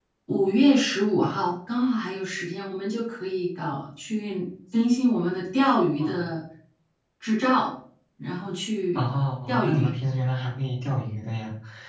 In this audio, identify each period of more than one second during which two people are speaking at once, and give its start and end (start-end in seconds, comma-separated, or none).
none